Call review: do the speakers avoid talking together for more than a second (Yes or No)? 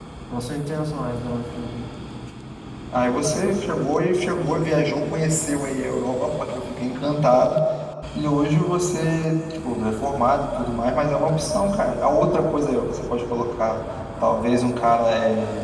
Yes